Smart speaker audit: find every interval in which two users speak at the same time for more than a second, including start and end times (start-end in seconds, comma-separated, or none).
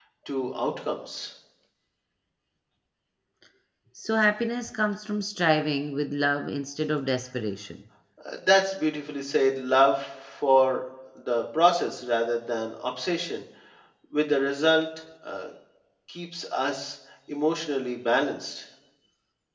none